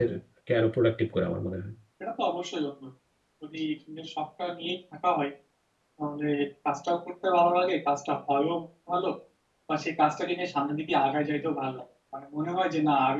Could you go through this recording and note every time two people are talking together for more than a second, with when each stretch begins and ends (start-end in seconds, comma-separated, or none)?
none